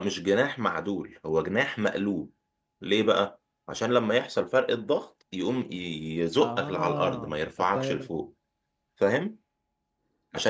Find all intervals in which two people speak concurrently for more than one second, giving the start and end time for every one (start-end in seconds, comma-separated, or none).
6.4-8.0